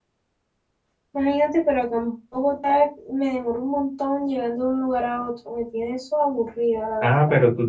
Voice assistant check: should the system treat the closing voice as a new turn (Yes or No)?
Yes